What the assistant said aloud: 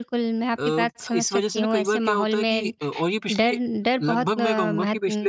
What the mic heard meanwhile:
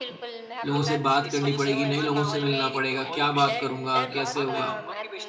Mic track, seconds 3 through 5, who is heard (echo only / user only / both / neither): both